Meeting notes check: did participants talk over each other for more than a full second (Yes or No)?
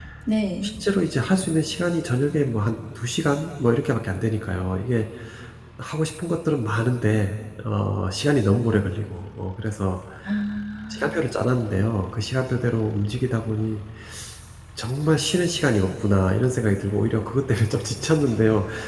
No